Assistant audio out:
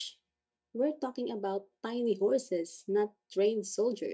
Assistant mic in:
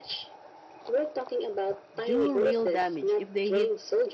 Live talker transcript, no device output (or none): do real damage if they hit